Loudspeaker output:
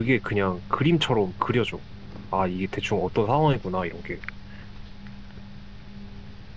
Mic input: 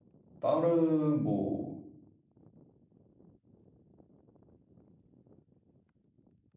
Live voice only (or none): 다른 뭐,